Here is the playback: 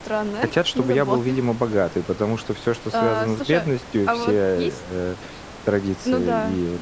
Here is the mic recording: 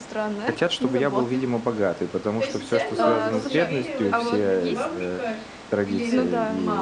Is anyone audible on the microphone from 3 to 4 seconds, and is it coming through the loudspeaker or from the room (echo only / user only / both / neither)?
both